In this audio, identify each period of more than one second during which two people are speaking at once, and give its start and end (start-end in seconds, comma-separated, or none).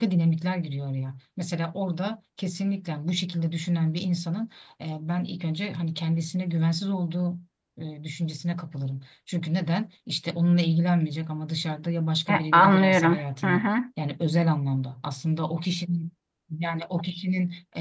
12.3-13.7